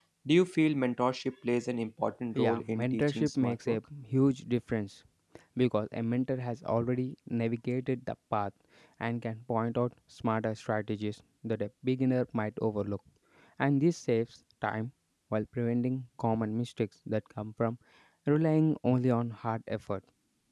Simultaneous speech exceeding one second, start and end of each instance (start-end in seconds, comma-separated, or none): 2.4-3.8